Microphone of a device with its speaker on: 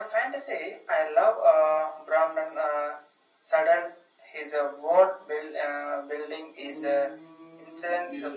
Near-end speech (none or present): present